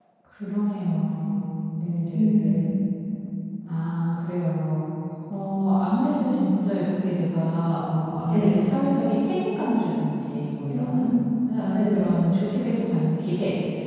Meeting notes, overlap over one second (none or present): none